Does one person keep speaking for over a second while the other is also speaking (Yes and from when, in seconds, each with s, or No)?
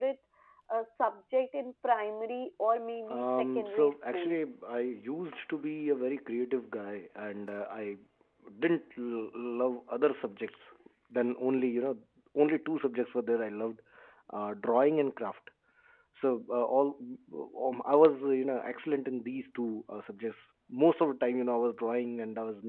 Yes, from 3.1 s